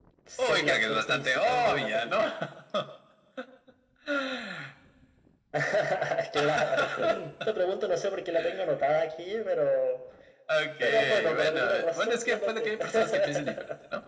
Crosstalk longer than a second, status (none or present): present